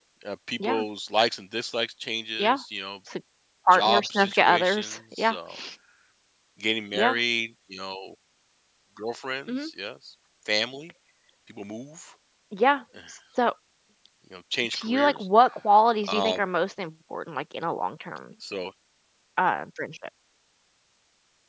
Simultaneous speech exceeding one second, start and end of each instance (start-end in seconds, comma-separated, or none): 3.7-5.3